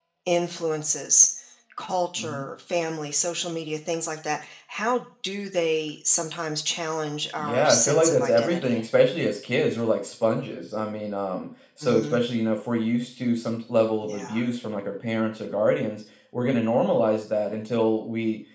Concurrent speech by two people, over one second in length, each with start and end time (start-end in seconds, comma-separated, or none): 7.4-8.8